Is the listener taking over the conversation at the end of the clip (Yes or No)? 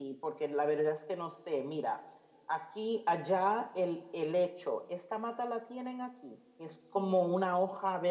No